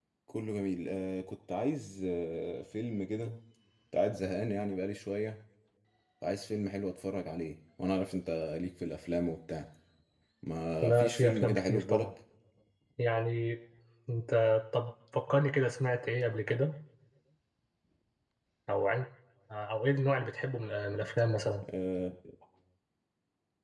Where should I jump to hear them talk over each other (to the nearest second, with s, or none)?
11 s